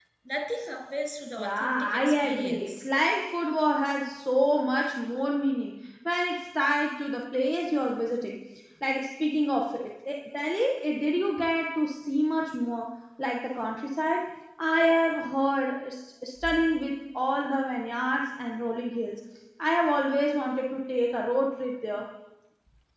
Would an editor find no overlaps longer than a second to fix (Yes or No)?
No